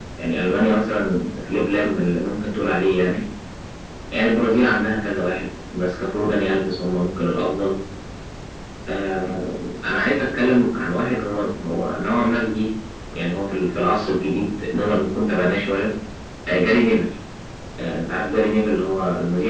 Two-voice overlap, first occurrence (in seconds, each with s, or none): none